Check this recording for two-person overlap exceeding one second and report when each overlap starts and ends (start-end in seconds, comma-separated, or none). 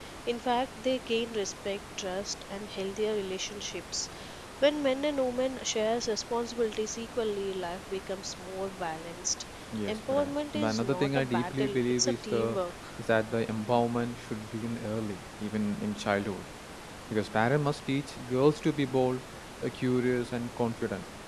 9.9-12.6